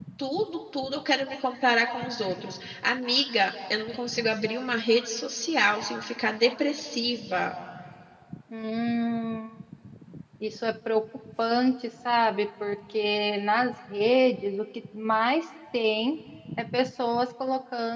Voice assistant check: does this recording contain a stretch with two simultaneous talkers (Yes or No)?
No